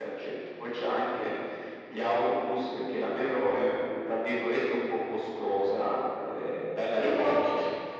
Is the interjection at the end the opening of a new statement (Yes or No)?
No